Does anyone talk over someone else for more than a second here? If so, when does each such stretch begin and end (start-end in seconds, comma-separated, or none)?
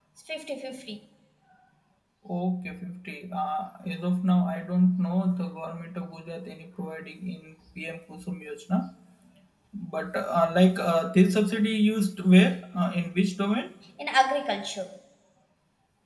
none